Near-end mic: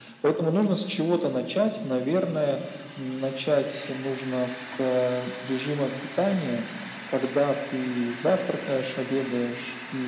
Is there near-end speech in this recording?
No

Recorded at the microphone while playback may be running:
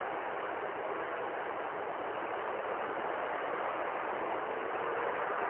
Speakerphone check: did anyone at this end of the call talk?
No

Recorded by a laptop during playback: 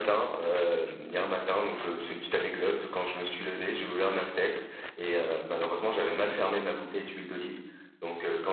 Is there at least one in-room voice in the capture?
No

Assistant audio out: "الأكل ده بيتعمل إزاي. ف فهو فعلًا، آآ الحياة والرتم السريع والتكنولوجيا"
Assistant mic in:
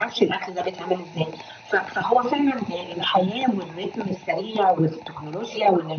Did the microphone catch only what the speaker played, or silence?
Yes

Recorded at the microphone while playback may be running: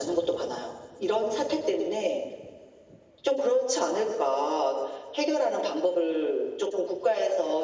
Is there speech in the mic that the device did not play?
No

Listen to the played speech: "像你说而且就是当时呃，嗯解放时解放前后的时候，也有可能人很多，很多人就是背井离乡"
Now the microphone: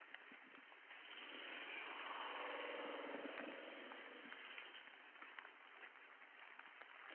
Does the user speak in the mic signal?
No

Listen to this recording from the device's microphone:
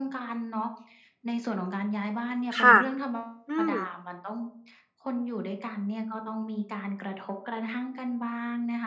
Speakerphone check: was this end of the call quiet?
No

